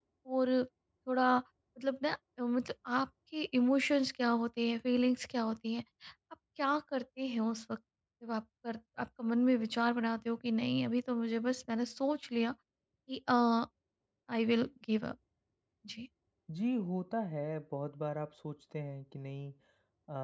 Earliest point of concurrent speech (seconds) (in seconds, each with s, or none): none